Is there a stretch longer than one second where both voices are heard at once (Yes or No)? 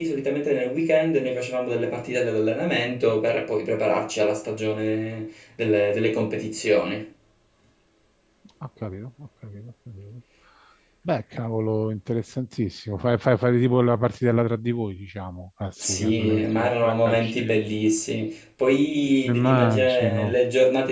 Yes